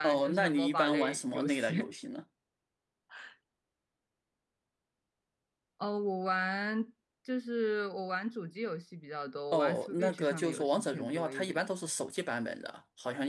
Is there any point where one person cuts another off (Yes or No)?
Yes